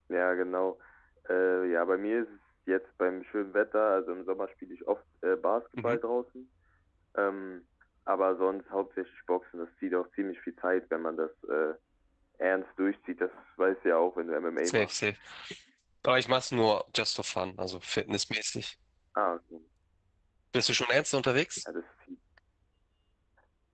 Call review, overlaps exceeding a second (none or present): none